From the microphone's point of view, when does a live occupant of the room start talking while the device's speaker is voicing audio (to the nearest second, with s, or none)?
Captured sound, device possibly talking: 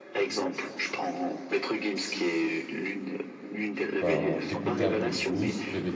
4 s